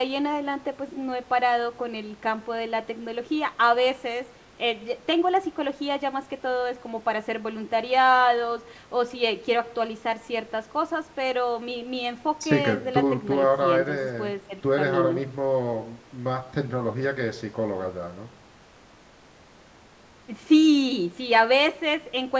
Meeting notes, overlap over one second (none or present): present